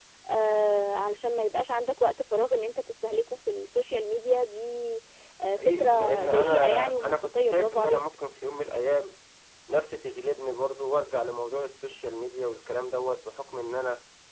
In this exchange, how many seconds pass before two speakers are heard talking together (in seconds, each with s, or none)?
5.6 s